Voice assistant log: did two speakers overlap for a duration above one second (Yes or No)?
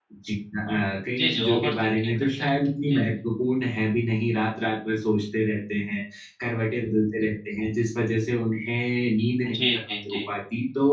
Yes